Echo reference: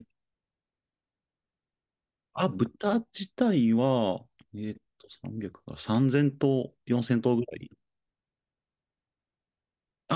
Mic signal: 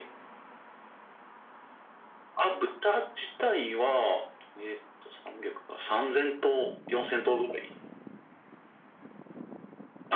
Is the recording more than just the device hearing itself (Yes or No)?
No